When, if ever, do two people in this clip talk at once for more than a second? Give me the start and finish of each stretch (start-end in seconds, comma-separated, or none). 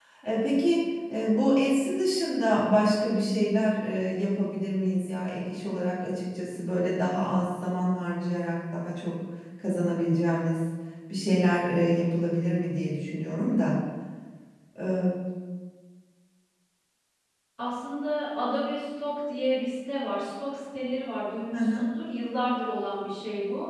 none